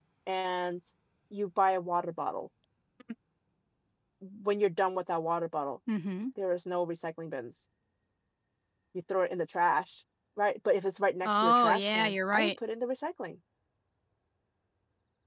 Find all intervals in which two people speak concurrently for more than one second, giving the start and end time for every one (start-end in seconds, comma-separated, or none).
11.2-12.5